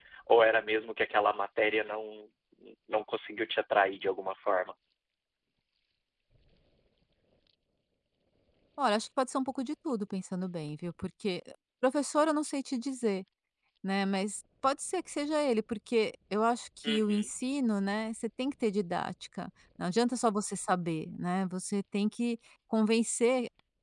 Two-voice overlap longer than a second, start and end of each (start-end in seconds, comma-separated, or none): none